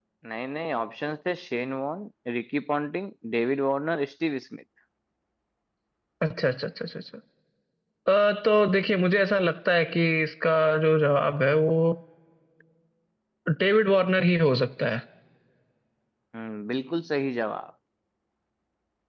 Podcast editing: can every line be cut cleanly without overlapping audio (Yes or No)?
Yes